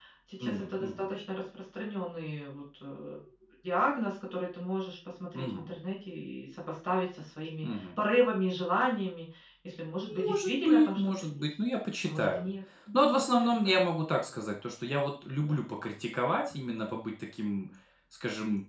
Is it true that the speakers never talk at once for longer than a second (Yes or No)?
No